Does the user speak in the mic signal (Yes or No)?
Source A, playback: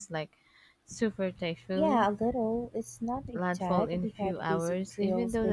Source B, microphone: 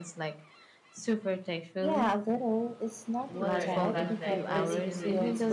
Yes